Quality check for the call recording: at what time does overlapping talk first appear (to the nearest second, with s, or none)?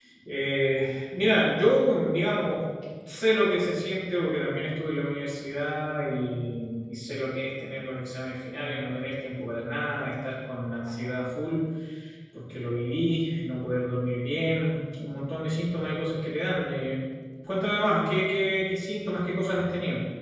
none